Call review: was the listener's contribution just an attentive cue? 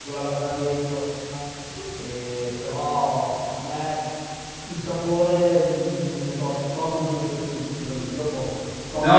No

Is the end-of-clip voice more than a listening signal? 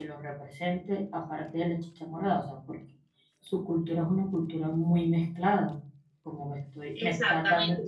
Yes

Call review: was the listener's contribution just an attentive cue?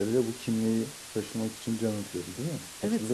No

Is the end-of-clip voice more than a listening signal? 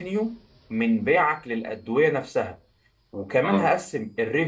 No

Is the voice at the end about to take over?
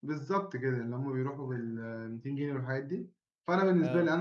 No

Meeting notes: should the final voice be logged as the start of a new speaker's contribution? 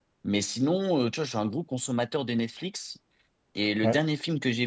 No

